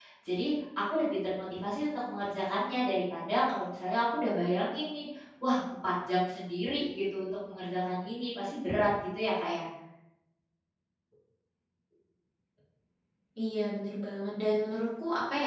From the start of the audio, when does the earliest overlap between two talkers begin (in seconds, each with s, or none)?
none